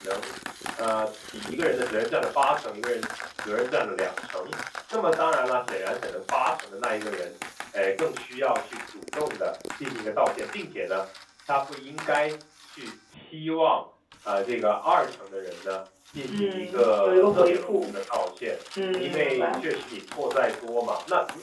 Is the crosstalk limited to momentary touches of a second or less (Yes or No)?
No